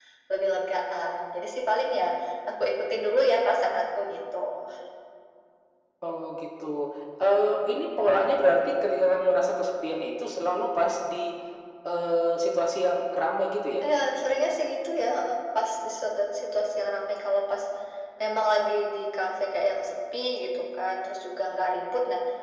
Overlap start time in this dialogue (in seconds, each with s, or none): none